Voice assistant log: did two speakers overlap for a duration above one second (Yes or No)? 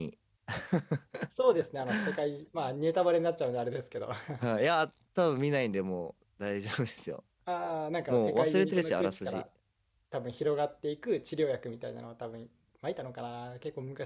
Yes